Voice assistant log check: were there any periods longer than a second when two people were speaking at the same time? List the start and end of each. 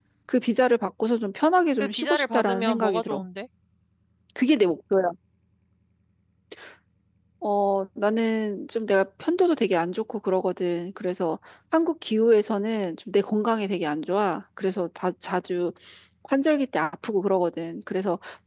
1.8-3.2

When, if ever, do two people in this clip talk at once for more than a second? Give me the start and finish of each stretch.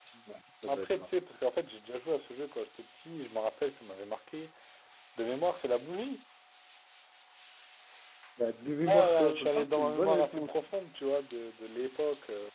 8.8-10.7

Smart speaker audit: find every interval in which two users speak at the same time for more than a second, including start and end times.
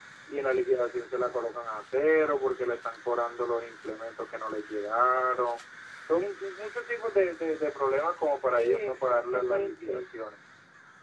8.3-10.1

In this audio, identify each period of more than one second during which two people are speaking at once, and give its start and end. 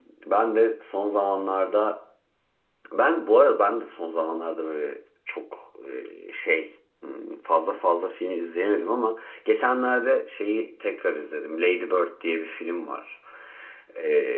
none

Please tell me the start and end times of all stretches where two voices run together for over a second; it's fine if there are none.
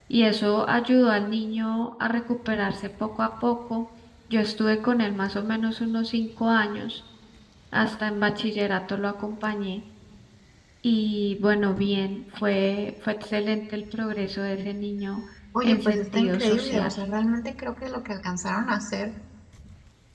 15.6-16.9

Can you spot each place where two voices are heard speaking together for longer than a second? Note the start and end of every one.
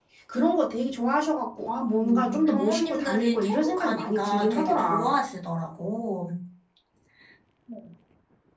2.0-5.1

